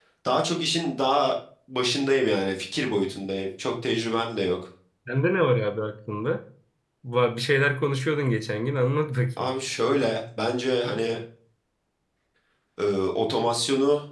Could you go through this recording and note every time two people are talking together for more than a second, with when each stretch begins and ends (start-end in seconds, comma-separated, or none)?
none